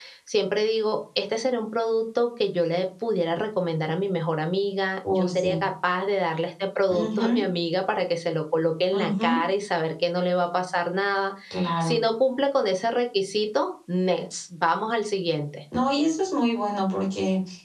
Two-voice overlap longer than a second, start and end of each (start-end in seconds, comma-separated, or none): none